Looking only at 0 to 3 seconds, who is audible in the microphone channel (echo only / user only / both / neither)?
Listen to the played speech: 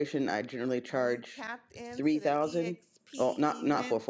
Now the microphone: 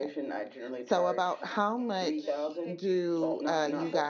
both